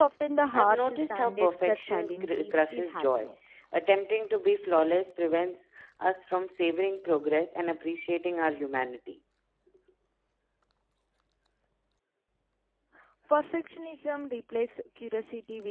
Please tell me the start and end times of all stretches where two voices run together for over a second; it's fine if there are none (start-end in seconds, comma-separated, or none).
0.5-3.3